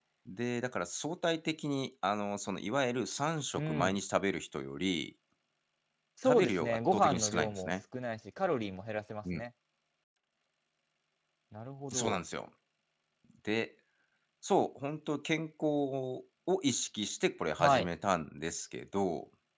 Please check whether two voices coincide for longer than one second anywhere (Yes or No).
Yes